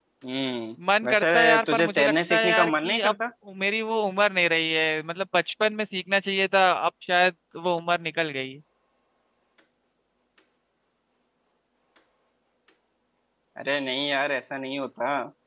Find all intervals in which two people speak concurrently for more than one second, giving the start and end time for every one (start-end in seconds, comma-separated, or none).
1.0-3.1